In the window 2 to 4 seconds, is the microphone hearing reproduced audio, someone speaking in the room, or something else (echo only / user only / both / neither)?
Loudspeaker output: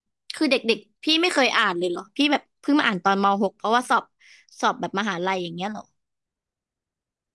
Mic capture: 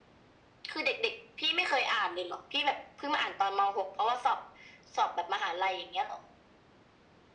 echo only